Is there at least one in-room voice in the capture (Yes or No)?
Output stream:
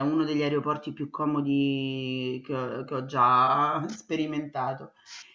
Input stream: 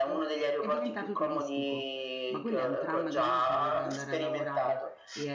Yes